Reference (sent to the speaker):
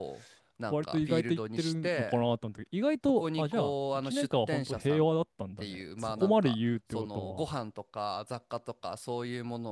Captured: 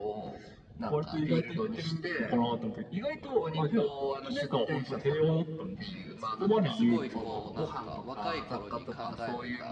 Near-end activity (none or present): present